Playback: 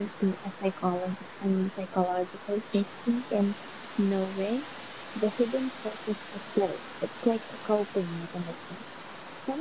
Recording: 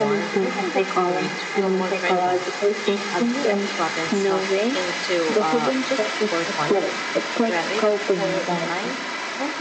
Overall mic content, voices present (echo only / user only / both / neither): both